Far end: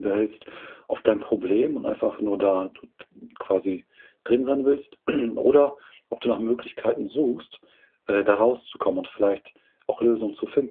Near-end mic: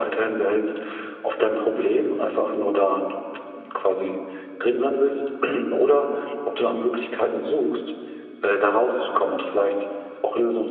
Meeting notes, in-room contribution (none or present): none